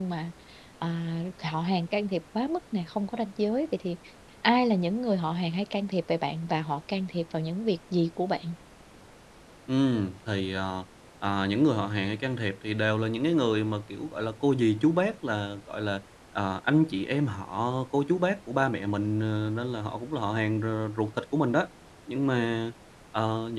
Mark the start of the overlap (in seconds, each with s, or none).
none